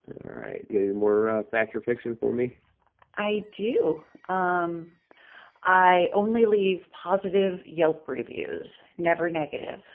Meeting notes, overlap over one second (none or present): none